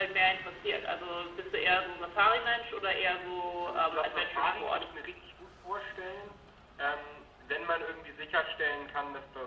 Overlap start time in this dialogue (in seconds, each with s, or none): 3.6 s